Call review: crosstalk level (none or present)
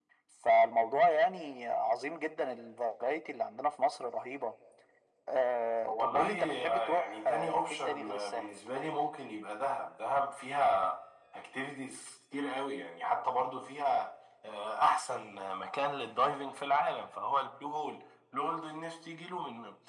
present